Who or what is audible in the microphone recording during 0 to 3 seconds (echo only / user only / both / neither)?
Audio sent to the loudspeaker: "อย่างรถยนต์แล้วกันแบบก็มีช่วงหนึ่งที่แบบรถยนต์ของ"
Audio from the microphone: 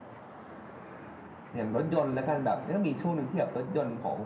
echo only